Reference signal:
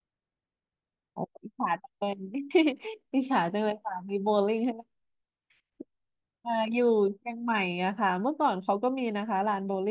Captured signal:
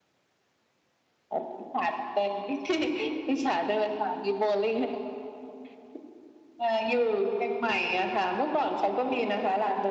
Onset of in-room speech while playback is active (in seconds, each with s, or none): none